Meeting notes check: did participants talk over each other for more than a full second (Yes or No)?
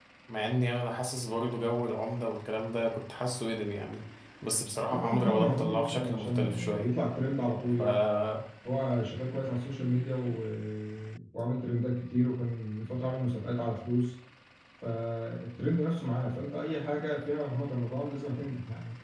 Yes